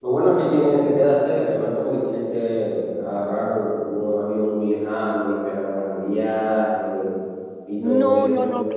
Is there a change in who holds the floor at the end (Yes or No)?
Yes